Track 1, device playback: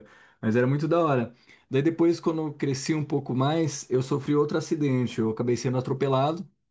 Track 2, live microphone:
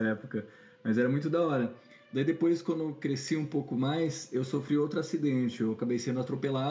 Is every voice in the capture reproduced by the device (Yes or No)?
Yes